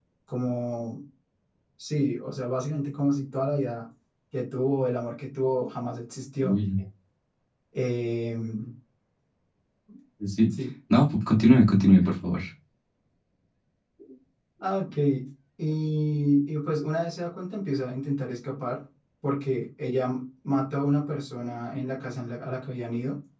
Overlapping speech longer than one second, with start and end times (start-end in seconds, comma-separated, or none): none